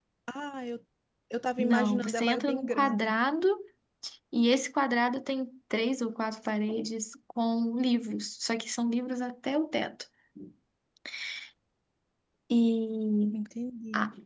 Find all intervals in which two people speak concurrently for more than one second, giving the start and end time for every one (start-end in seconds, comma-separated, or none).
1.6-3.2